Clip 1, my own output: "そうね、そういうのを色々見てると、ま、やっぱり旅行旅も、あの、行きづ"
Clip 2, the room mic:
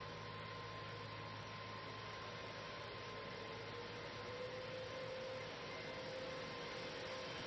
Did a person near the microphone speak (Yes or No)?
No